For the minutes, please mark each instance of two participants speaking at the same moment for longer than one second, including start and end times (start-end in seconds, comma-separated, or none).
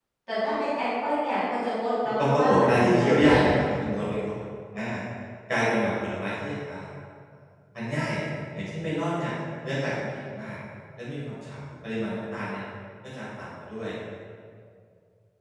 2.2-3.4